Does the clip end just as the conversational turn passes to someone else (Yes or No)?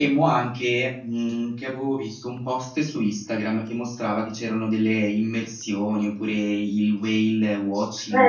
Yes